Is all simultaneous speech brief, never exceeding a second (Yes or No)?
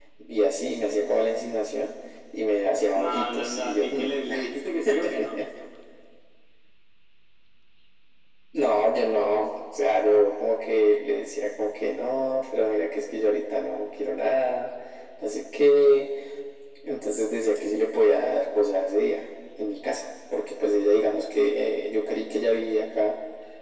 No